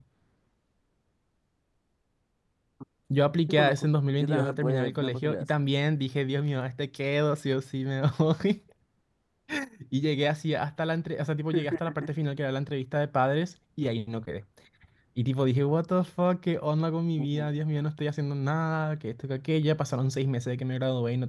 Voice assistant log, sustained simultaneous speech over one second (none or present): present